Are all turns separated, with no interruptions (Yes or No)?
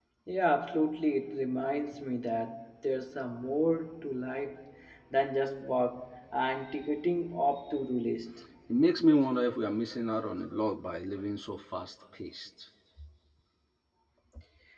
Yes